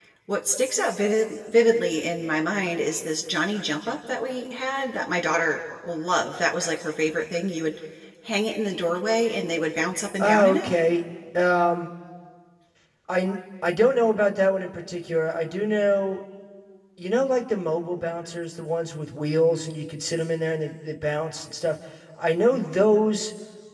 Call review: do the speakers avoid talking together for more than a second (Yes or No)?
Yes